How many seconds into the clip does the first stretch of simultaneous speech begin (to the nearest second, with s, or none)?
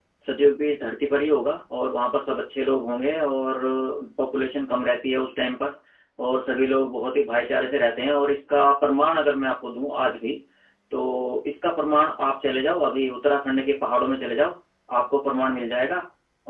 none